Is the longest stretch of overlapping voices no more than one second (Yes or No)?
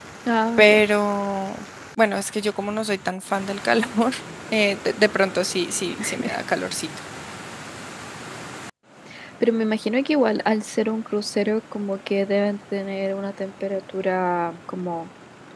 Yes